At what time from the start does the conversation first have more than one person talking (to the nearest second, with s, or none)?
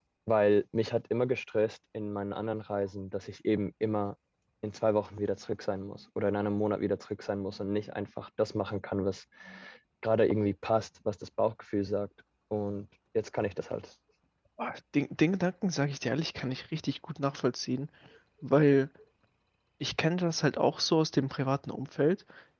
none